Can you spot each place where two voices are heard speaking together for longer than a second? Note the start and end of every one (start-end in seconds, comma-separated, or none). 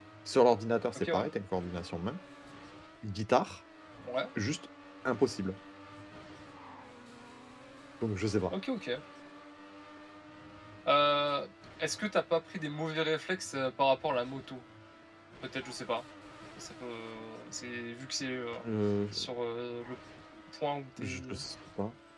none